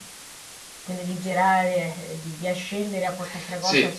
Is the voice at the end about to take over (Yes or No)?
Yes